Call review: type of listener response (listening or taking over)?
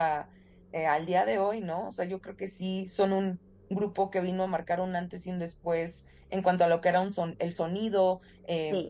listening